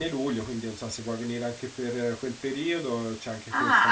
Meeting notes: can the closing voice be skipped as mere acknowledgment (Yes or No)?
No